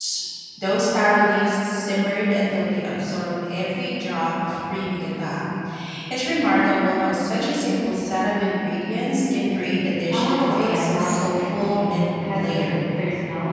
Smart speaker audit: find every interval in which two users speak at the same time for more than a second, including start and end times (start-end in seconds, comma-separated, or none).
10.1-12.9